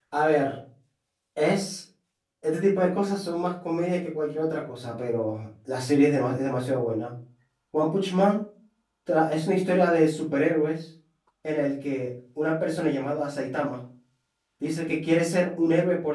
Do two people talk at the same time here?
No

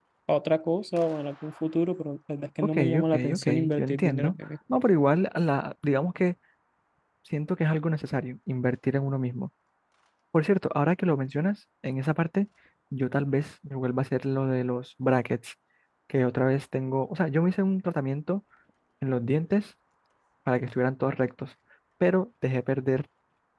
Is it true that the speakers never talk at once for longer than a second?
No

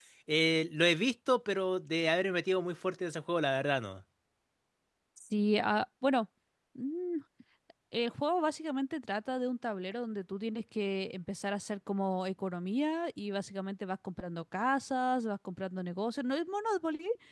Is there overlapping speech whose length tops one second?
No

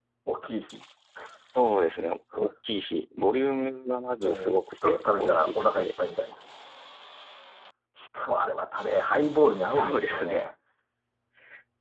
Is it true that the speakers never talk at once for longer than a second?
No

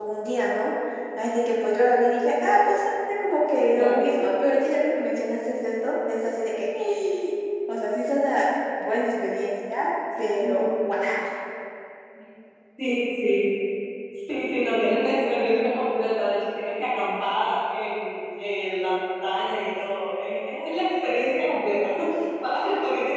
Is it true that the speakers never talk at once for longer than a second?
Yes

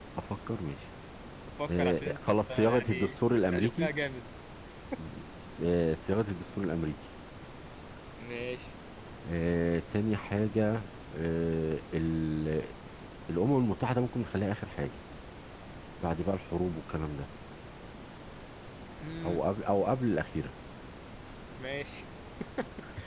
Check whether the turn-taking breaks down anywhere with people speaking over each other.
Yes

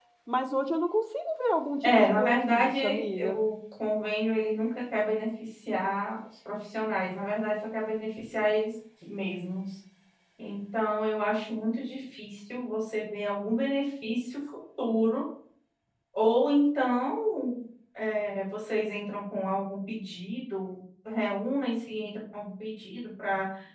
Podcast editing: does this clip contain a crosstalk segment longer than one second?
Yes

